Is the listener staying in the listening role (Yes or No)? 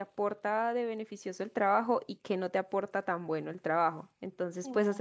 Yes